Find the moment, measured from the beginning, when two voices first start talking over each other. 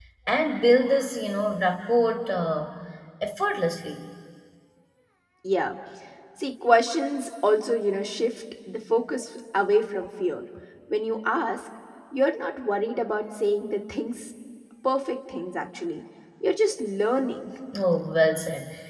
none

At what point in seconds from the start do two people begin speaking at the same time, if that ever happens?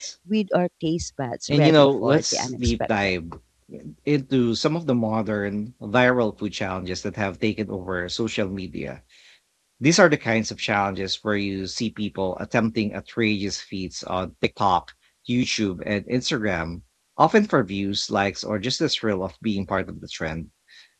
1.5 s

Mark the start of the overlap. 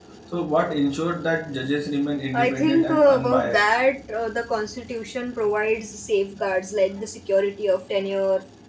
2.3 s

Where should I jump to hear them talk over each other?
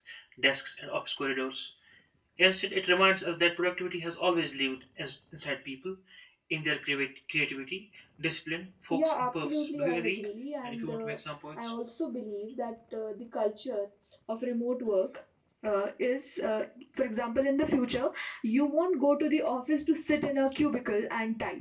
8.9 s

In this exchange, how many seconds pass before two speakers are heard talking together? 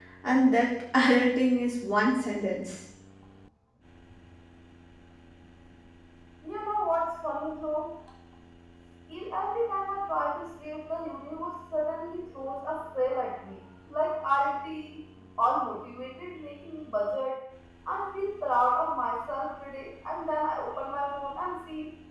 none

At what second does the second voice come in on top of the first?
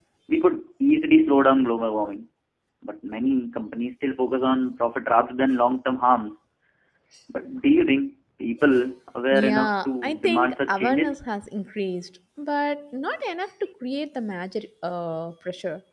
9.3 s

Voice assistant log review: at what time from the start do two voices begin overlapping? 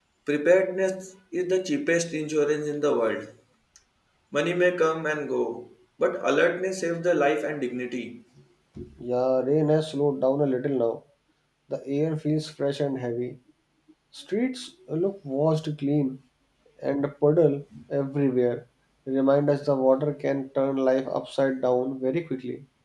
none

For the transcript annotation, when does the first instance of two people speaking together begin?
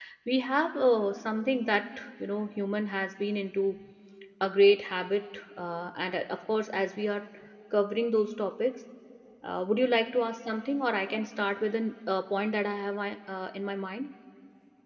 none

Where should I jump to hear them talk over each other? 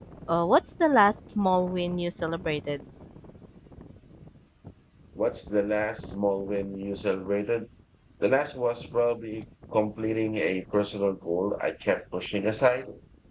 none

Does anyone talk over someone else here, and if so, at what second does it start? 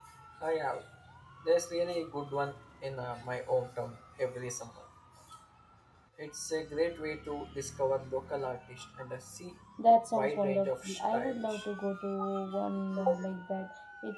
10.1 s

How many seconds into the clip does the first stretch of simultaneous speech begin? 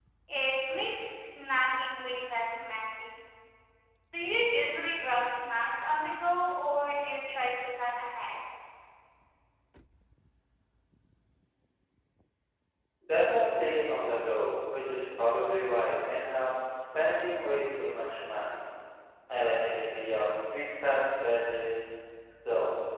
none

